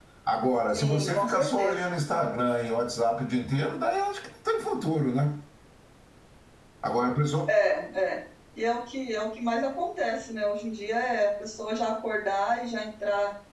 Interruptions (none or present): present